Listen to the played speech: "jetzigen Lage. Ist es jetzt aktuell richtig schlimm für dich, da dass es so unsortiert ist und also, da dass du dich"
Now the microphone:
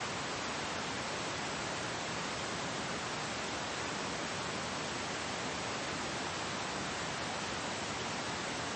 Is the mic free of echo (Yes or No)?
Yes